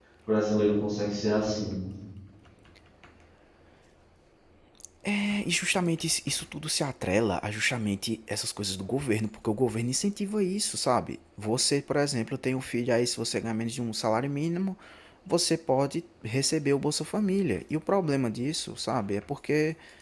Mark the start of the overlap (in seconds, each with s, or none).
none